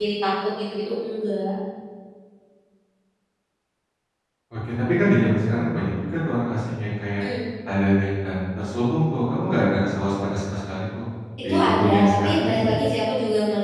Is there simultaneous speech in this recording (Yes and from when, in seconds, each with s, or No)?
Yes, from 11.5 s